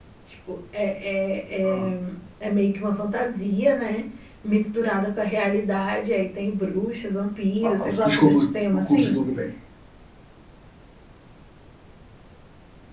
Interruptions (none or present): present